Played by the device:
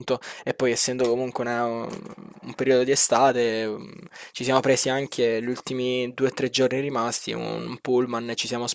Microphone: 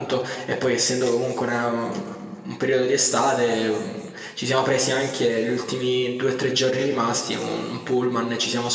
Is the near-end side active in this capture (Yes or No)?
No